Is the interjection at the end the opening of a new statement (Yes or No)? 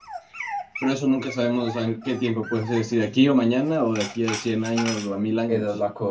Yes